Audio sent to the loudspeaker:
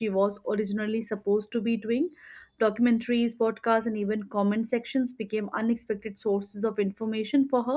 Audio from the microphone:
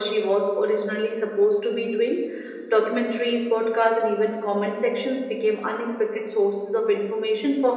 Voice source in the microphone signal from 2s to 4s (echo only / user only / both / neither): echo only